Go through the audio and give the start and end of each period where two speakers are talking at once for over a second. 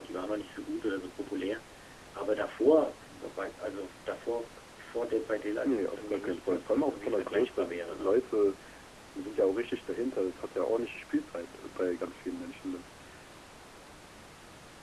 5.7-8.1

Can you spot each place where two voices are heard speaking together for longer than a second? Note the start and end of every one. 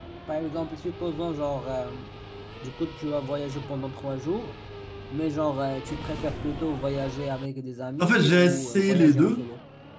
8.0-9.5

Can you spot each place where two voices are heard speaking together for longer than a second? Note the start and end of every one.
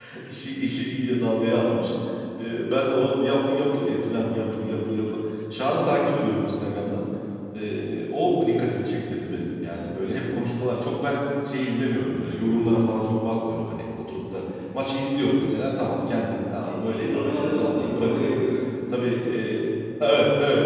16.8-18.4

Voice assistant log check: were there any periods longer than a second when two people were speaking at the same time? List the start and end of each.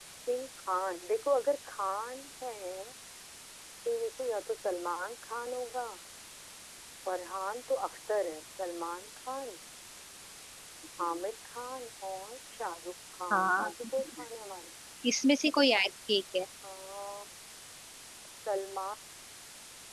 none

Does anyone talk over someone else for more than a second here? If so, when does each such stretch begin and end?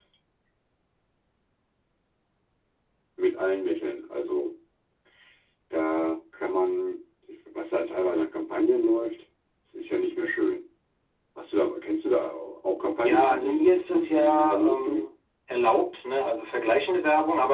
13.0-15.1

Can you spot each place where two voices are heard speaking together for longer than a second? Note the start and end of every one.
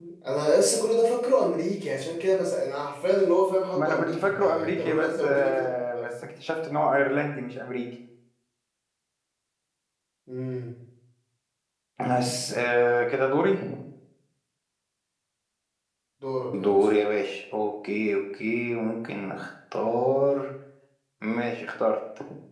3.8-5.7

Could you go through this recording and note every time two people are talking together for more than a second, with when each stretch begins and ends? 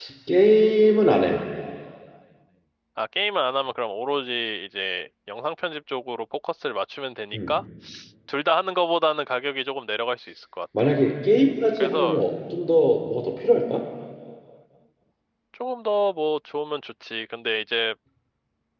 none

